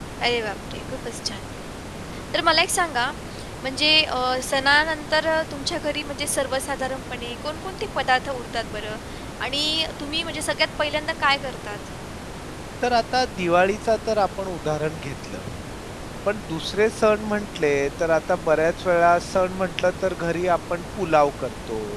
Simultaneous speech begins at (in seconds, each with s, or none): none